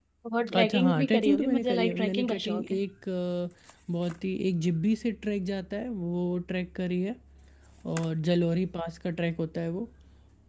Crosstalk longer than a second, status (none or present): present